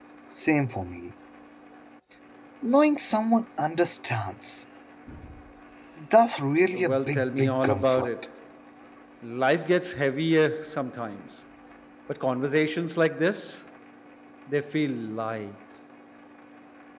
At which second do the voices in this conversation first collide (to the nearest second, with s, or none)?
7 s